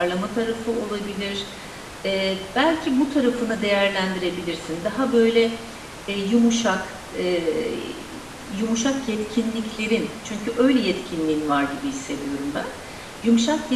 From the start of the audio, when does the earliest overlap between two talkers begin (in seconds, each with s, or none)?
none